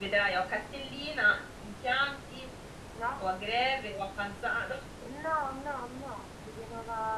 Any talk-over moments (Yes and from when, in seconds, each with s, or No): No